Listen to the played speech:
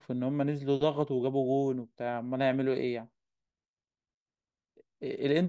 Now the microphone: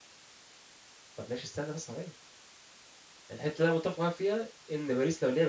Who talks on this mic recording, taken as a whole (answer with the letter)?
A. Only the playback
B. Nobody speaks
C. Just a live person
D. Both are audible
C